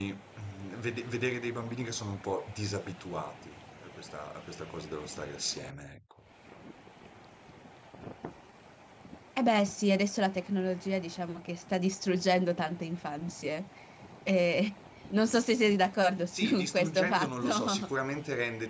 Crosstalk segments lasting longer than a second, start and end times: 16.3-17.9

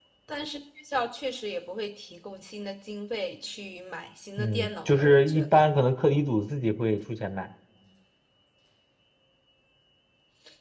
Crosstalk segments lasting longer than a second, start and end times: 4.4-5.7

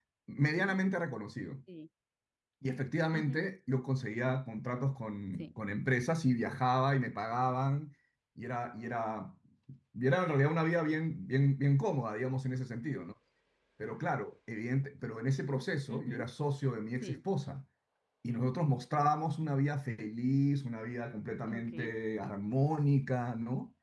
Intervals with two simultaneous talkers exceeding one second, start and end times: none

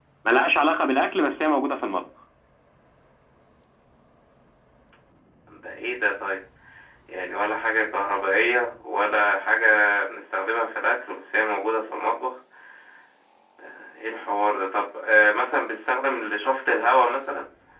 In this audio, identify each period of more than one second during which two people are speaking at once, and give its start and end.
none

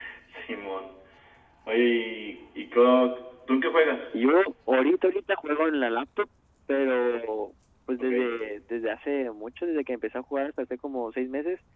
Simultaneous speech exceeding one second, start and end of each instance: none

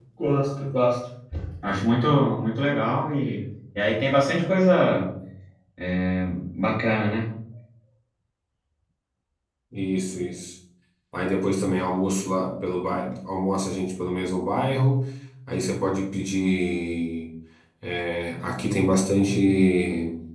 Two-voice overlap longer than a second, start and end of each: none

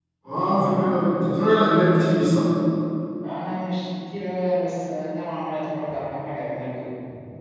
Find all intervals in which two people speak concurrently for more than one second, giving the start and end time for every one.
none

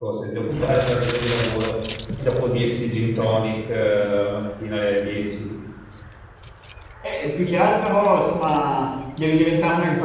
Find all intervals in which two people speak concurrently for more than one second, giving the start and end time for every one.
none

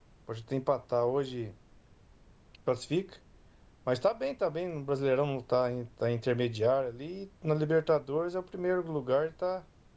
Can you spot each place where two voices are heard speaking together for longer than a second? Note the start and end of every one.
none

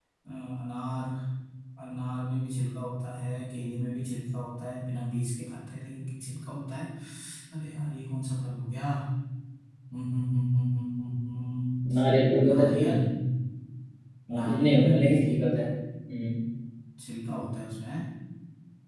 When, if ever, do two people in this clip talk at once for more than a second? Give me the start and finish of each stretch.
14.4-15.6

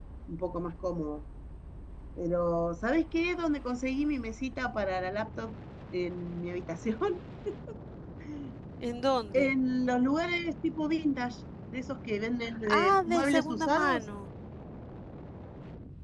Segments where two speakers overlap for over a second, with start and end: 12.7-14.1

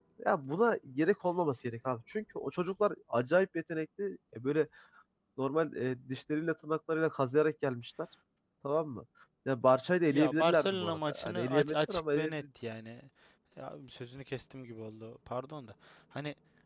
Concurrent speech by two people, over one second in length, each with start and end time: 10.0-12.3

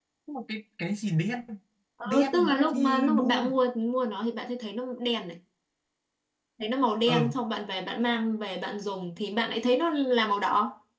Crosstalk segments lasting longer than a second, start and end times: 2.0-3.4

